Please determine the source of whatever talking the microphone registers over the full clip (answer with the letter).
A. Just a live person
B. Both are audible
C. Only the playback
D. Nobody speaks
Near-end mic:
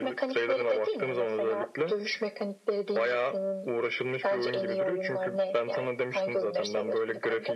C